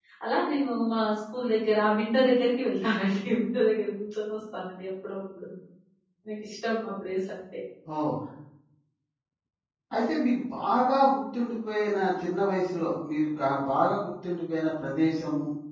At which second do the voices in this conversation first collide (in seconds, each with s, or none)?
none